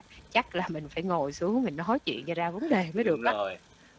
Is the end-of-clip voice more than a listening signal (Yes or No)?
Yes